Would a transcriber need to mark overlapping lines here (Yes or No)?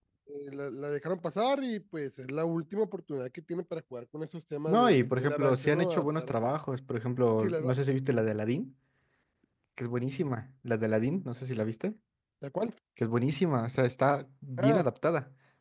Yes